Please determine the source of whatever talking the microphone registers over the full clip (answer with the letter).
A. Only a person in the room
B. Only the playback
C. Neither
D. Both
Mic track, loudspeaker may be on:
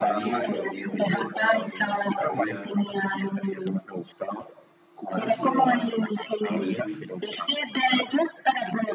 D